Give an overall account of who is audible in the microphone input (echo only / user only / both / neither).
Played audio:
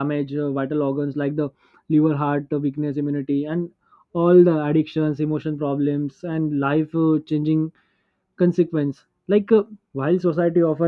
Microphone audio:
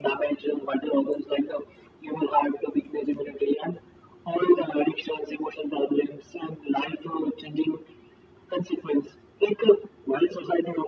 echo only